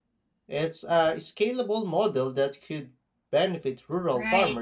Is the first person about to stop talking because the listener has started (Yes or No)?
Yes